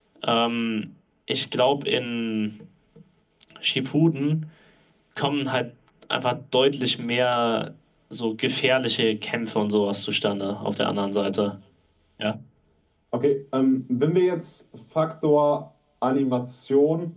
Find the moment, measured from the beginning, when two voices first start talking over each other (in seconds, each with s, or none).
none